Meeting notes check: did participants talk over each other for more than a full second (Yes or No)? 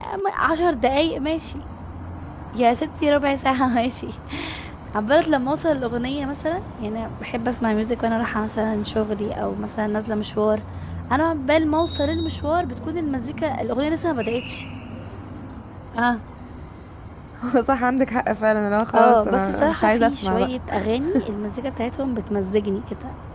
Yes